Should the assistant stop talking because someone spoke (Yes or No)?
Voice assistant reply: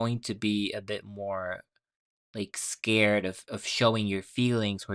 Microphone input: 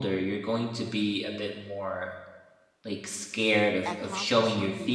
Yes